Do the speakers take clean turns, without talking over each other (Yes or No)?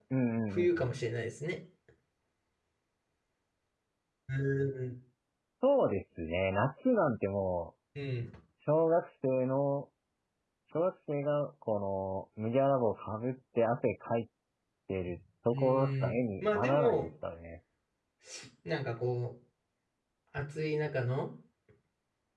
No